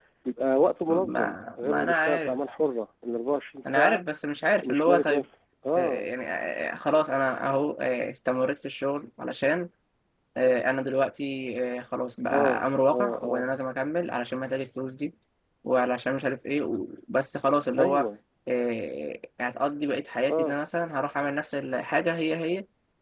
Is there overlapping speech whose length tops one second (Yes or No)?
Yes